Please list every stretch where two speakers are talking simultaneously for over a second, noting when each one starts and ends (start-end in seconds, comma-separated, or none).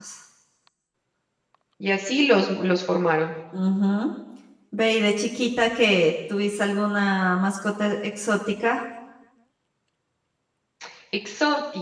none